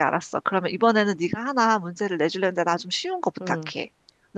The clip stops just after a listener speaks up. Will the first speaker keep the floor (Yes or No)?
No